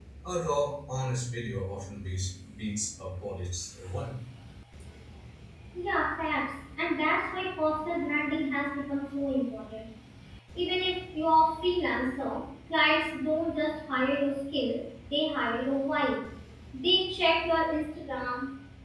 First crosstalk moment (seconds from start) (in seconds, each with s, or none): none